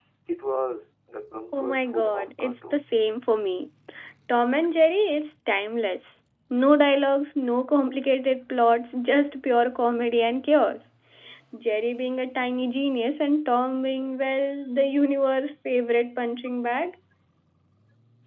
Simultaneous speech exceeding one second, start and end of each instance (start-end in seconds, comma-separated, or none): 1.6-2.8